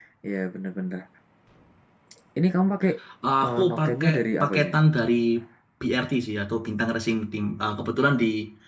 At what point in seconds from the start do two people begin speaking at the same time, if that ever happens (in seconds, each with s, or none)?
3.5 s